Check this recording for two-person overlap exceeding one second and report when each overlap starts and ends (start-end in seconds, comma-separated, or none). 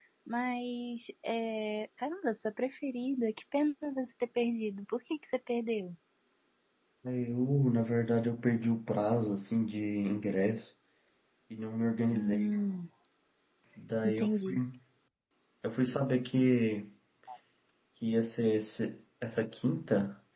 none